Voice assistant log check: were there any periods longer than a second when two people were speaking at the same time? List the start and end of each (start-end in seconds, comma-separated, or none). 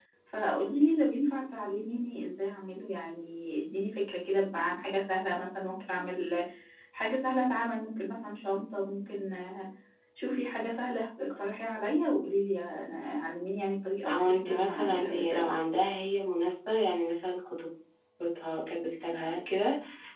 14.1-15.5